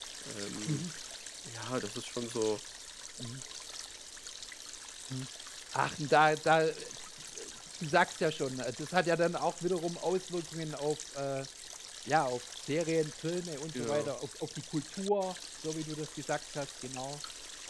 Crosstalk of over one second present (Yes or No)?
No